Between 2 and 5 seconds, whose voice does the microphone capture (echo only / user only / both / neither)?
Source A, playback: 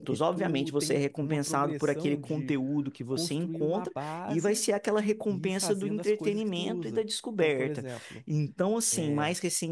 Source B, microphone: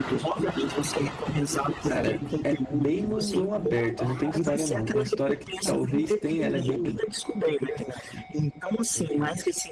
both